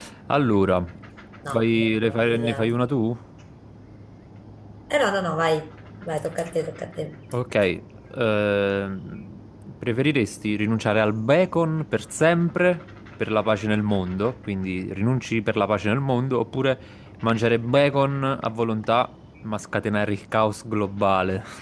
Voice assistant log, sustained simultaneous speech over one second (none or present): present